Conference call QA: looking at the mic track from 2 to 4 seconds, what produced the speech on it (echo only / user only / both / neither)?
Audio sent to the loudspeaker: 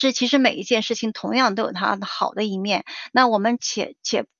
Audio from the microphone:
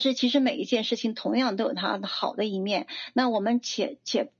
echo only